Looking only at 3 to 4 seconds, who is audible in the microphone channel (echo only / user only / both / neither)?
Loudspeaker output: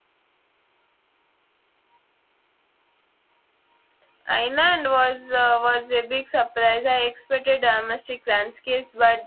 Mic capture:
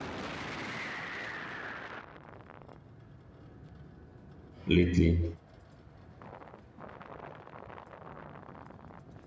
neither